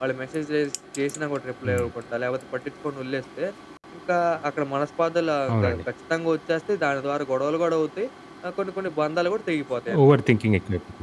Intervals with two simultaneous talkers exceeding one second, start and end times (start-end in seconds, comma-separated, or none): none